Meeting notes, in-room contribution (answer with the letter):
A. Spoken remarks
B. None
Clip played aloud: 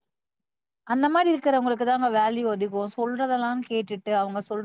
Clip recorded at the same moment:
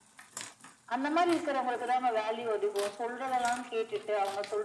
B